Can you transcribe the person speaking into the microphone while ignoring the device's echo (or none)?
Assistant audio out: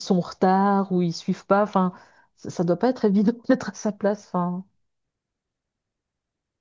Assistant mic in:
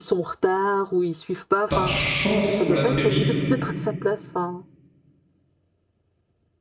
par chance pour la série